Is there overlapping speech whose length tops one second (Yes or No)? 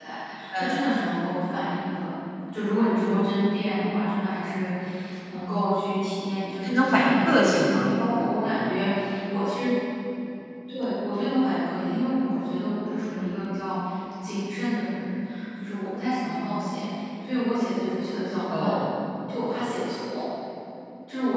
Yes